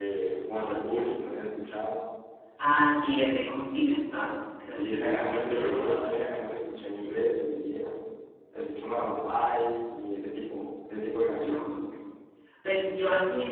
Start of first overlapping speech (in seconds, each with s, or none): 4.7 s